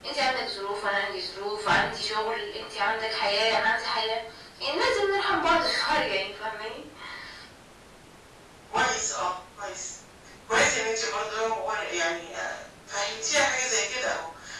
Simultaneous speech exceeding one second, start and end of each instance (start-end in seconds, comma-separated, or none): none